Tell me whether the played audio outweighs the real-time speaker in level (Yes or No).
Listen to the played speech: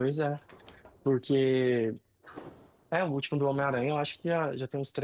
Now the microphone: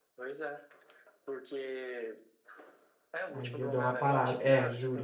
No